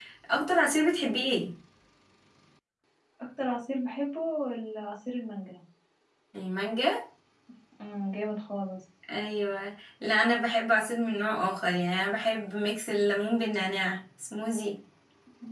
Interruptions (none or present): none